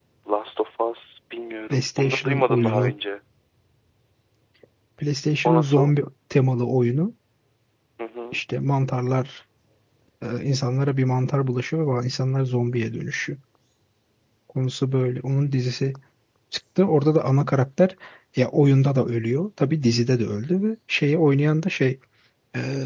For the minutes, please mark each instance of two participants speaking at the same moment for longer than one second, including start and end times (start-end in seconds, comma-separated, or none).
1.7-2.9